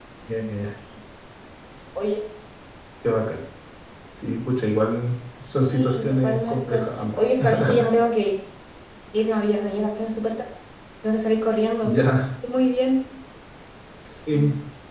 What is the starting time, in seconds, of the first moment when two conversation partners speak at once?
5.6 s

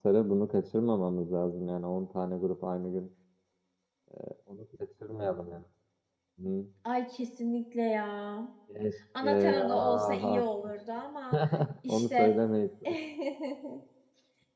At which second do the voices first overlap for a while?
9.2 s

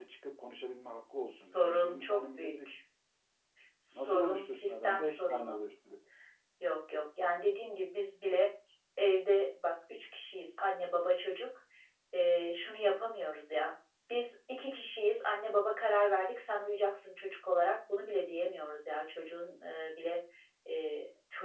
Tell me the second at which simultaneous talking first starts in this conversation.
1.4 s

